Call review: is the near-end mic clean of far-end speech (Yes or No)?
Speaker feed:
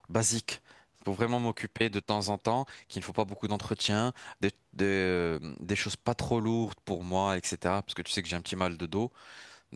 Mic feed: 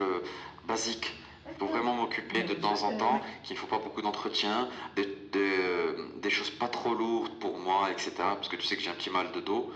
No